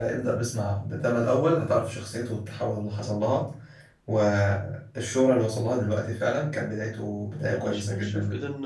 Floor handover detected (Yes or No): Yes